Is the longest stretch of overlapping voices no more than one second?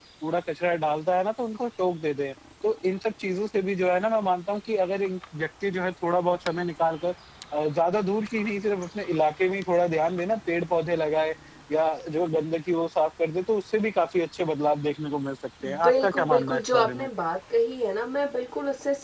No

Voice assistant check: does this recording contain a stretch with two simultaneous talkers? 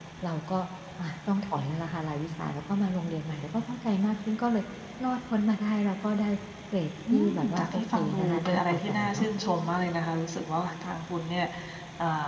Yes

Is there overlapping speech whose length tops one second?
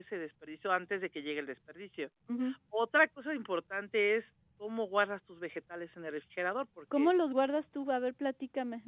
No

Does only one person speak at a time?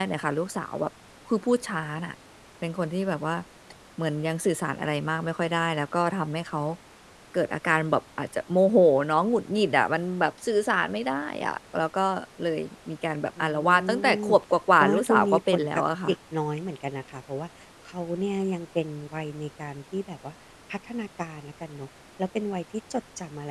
No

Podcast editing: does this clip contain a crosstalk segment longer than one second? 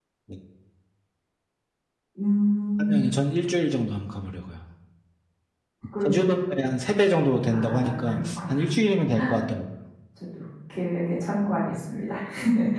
Yes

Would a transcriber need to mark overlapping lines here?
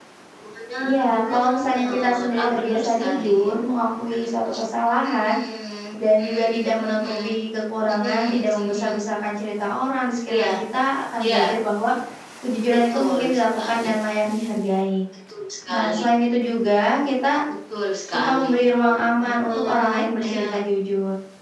Yes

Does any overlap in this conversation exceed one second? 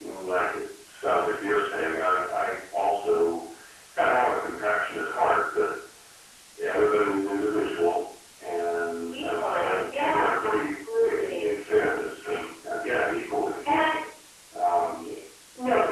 Yes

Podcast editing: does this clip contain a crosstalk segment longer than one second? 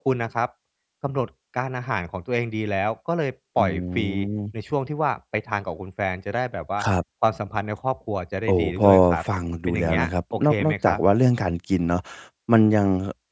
Yes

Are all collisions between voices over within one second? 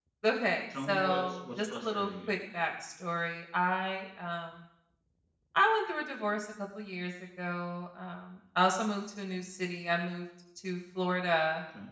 No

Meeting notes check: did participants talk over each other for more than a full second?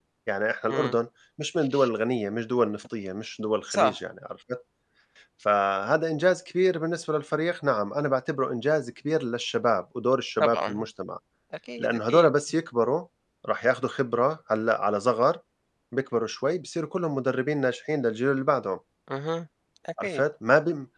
No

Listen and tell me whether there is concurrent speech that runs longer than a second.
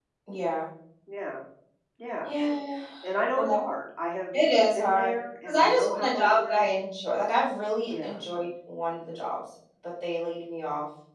Yes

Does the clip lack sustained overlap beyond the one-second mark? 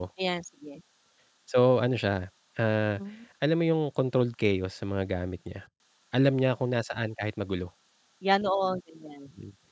Yes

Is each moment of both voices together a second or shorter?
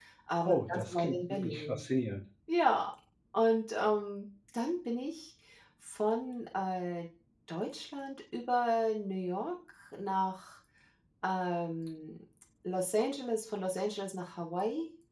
No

